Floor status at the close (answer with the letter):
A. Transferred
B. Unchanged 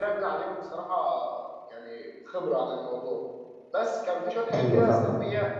B